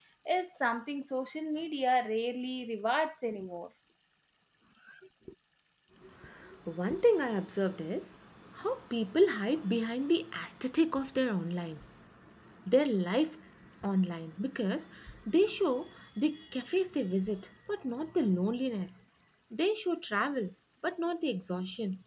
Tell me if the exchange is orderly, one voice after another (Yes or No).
Yes